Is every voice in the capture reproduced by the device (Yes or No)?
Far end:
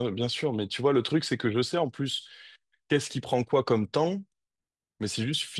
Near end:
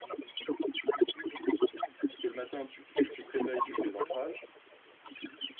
No